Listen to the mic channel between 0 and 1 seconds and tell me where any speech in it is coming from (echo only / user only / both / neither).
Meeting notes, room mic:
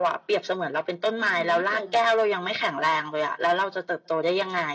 echo only